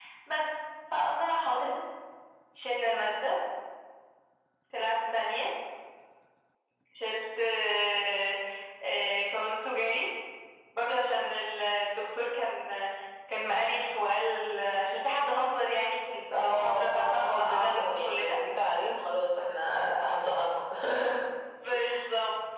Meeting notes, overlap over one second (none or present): present